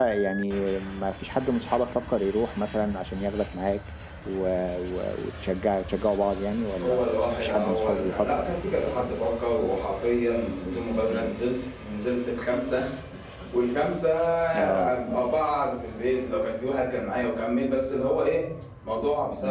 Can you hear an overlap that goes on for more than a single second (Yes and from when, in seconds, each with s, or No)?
Yes, from 6.8 s